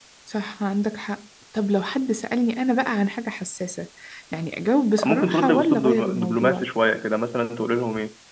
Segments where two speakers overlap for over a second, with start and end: 5.0-6.7

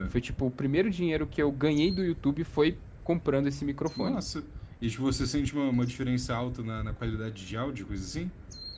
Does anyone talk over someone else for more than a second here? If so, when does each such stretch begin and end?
none

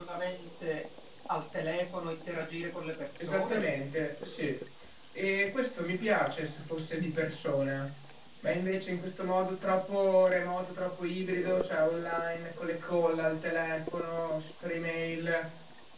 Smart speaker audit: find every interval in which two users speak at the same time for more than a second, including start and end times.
none

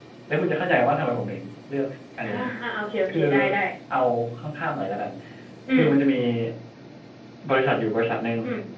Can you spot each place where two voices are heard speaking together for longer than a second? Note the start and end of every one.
none

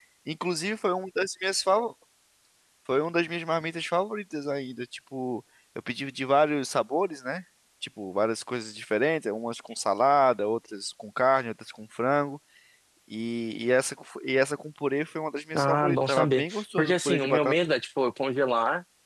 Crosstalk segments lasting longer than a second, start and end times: 15.6-17.5

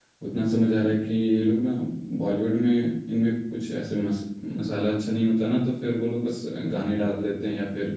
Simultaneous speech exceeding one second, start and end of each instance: none

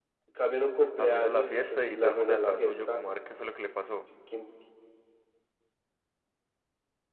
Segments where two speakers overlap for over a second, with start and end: 1.0-3.0

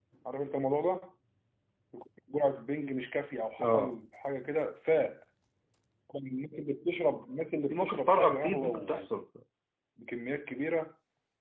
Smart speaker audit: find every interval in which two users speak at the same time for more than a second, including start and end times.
7.7-9.1

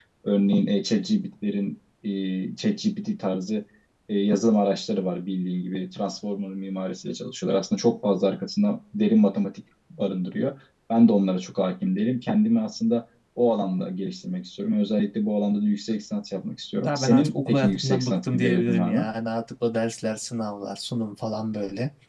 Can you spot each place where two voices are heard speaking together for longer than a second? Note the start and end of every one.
16.8-19.1

